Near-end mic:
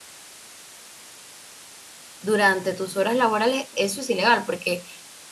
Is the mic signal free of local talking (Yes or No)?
No